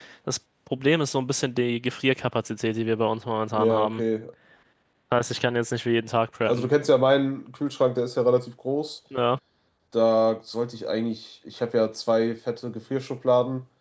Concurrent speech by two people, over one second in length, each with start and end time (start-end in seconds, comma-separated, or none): none